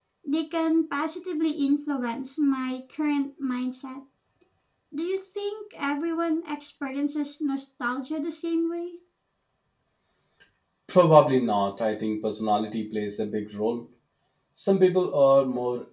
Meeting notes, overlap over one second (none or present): none